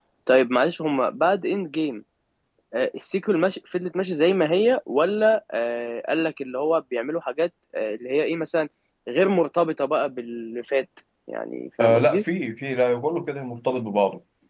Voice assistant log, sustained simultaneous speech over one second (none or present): none